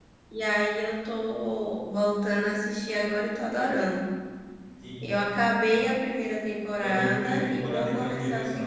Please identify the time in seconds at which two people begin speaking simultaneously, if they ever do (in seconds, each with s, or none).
6.8 s